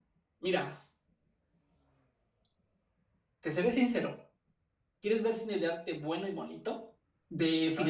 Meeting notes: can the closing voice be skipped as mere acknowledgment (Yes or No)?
Yes